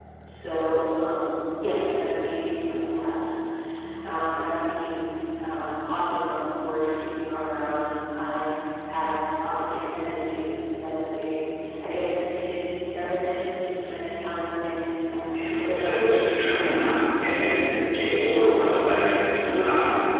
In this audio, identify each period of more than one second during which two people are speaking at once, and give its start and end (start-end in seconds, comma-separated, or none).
15.3-16.8